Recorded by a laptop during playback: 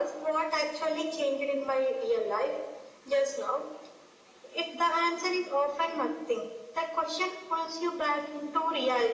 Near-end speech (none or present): none